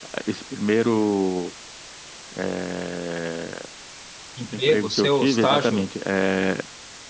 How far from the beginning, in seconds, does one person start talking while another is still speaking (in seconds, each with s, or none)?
4.5 s